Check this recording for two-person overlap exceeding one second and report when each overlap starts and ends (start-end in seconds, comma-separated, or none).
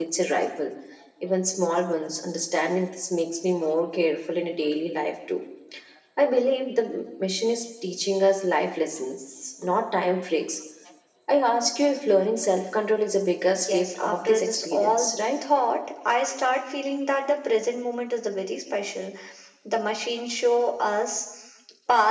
13.5-15.0